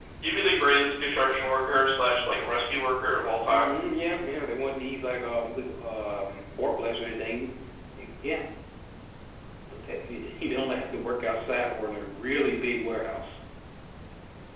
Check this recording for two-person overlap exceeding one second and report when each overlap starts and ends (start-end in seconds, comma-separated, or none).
none